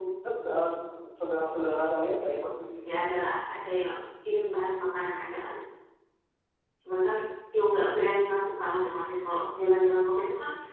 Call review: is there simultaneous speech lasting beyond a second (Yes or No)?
No